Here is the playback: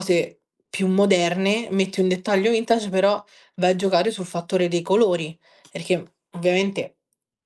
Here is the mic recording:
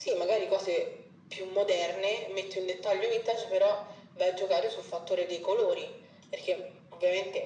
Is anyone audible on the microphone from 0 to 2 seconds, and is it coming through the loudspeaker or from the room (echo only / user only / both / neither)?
echo only